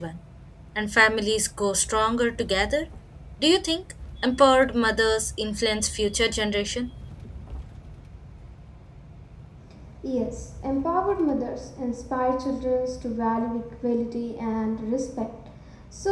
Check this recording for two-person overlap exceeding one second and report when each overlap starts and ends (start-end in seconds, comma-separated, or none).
none